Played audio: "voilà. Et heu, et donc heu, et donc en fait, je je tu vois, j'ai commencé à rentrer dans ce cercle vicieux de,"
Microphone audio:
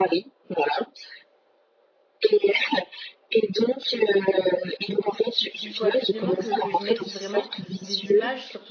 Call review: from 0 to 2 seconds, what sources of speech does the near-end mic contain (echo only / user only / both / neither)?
echo only